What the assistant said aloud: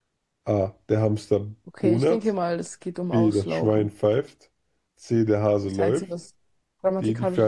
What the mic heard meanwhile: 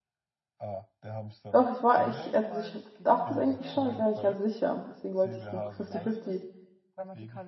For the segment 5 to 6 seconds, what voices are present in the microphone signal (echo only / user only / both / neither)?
both